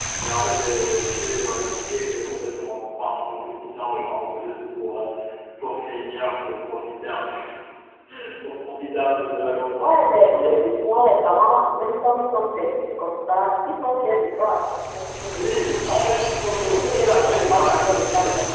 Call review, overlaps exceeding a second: present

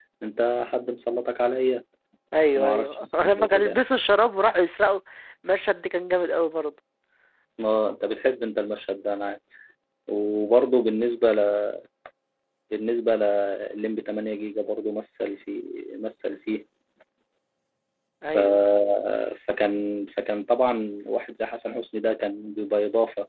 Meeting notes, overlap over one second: present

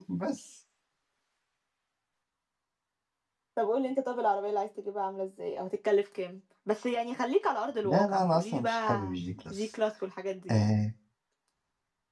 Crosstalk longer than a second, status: present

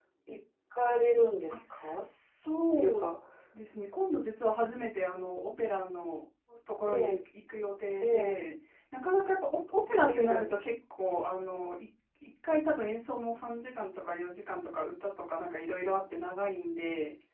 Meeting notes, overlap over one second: none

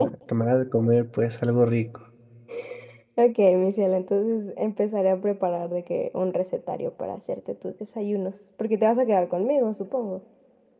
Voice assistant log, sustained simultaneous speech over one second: none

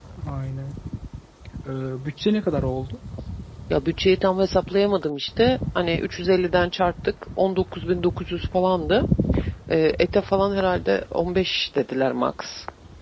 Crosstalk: none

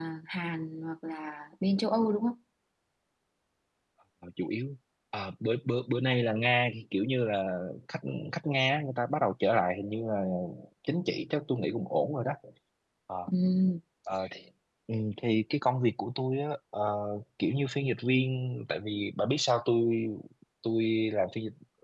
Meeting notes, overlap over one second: none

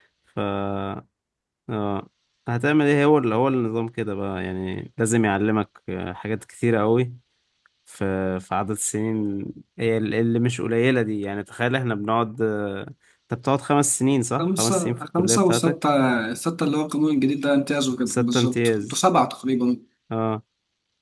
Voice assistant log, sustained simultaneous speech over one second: present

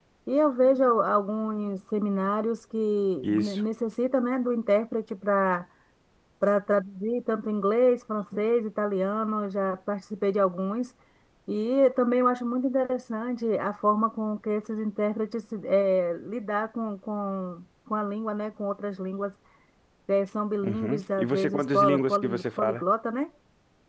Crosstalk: present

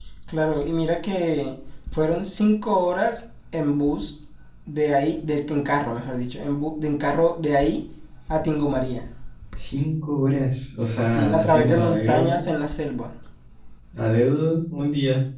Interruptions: present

